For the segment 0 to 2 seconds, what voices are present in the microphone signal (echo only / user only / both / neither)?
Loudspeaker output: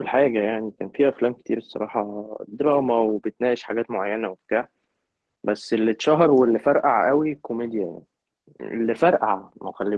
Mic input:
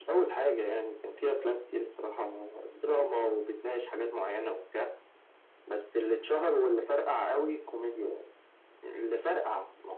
echo only